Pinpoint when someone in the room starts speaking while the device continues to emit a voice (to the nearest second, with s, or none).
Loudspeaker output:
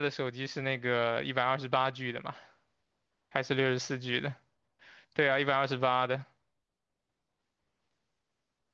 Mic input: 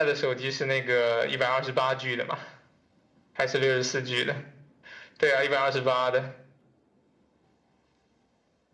none